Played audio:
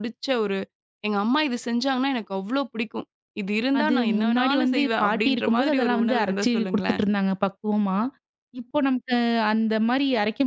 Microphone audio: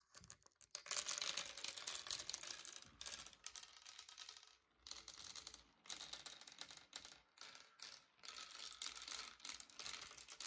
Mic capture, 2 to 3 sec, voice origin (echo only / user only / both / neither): neither